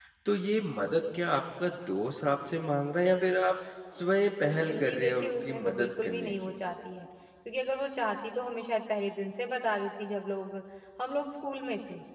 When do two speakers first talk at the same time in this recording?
4.4 s

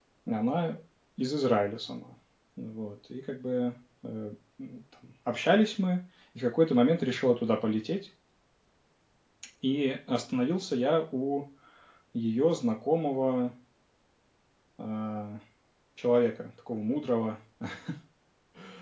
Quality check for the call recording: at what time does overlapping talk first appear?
none

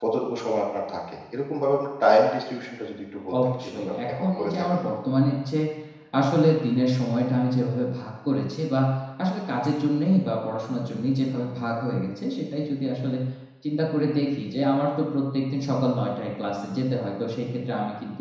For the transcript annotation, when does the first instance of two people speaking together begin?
3.3 s

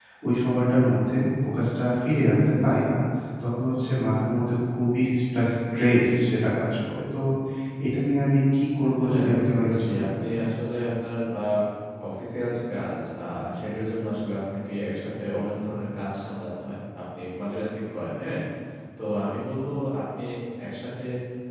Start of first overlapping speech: 9.0 s

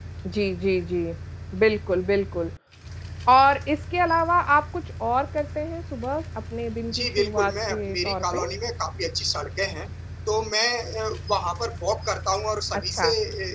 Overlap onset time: 6.9 s

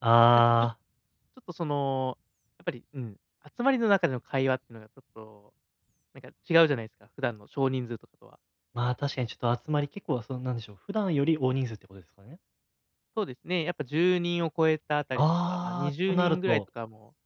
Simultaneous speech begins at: 15.2 s

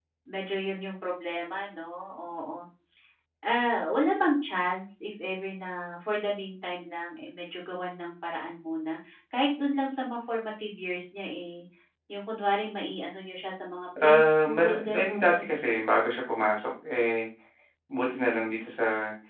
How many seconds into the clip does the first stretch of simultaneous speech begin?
14.0 s

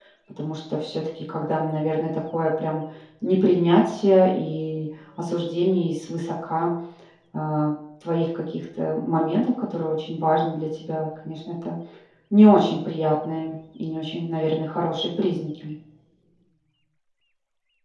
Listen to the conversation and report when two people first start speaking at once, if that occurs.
none

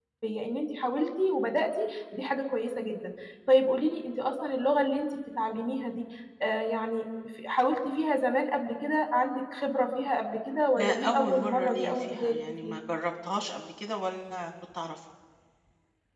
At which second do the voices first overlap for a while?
10.8 s

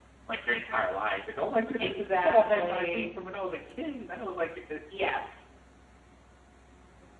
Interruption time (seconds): 1.8 s

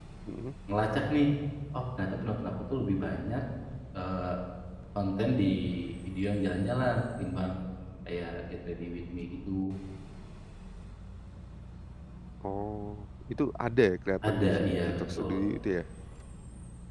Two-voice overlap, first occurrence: 14.2 s

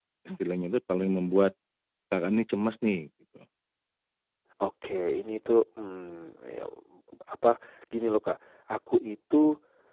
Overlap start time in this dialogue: none

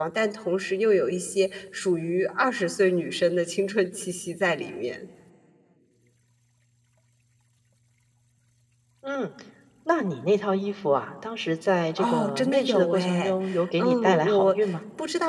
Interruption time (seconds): 12.0 s

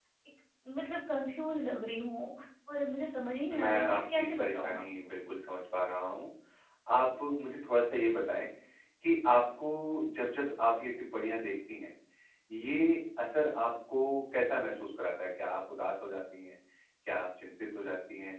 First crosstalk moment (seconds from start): 3.5 s

